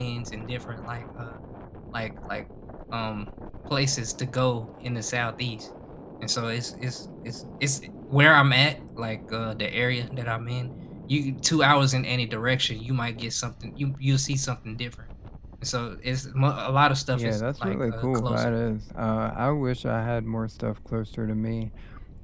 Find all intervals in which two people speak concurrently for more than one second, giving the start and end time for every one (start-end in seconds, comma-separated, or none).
17.1-18.5